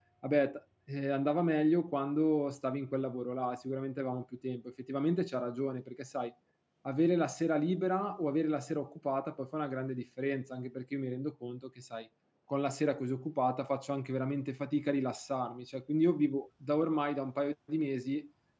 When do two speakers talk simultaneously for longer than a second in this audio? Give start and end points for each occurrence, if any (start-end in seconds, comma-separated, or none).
none